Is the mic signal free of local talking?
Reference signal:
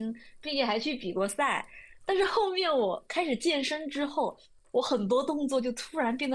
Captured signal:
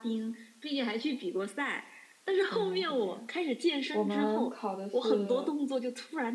No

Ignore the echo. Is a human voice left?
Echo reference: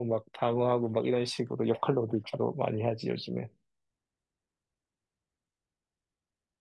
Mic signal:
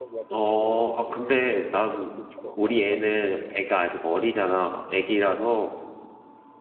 Yes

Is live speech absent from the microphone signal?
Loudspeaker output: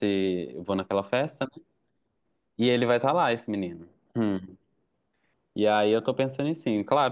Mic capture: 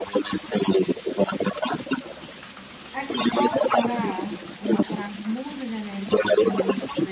No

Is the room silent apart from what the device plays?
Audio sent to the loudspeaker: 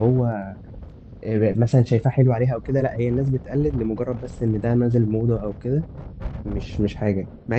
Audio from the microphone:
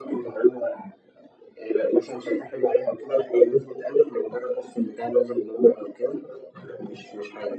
Yes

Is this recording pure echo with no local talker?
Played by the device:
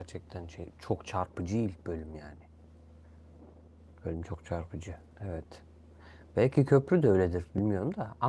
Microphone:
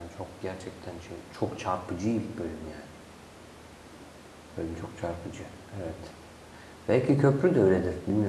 Yes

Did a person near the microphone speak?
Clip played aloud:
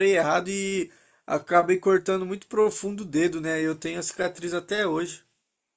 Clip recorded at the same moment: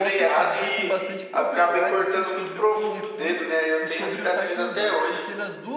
Yes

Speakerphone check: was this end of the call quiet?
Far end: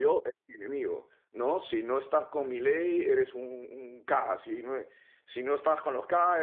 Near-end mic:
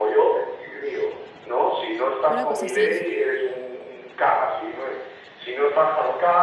No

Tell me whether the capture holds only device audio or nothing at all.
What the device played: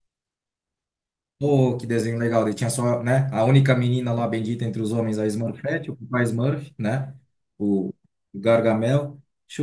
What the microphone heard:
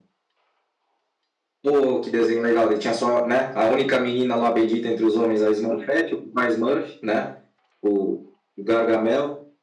Yes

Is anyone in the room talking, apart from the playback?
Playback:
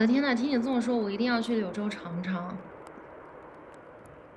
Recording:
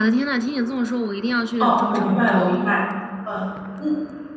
Yes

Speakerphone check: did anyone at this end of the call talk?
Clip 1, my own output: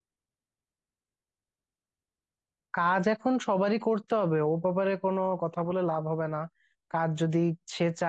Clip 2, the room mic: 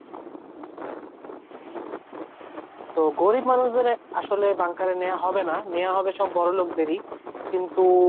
Yes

